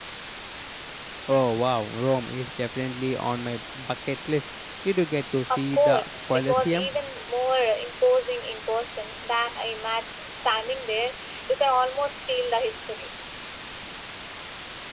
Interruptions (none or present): present